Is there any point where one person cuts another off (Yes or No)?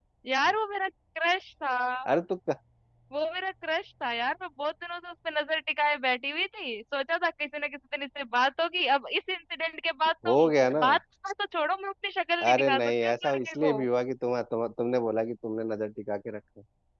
Yes